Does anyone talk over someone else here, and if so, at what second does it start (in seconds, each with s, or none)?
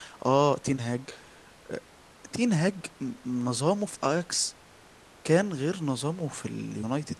none